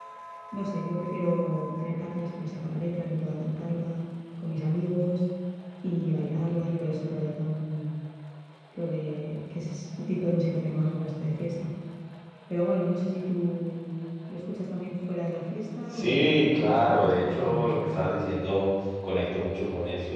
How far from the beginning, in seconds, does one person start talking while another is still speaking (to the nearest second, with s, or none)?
16 s